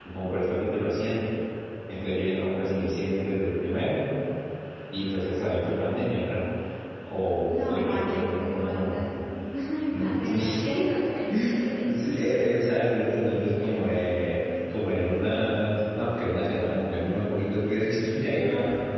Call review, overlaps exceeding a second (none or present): present